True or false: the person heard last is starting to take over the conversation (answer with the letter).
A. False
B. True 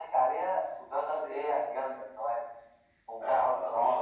B